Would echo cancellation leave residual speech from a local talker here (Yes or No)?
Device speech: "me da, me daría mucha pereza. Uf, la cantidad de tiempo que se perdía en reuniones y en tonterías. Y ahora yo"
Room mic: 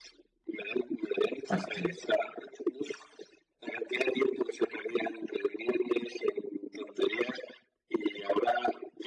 Yes